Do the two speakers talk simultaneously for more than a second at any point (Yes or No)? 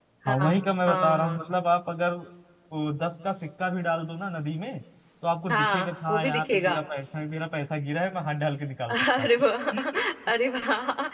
Yes